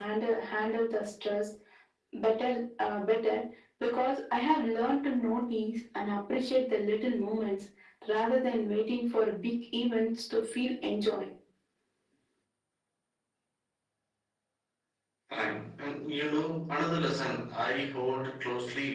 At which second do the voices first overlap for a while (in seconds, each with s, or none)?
none